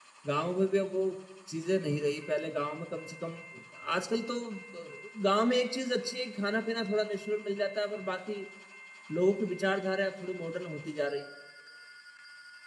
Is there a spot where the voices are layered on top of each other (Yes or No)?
No